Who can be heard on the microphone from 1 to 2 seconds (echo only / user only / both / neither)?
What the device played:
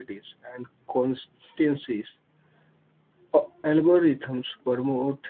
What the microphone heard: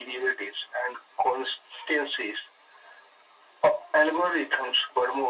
echo only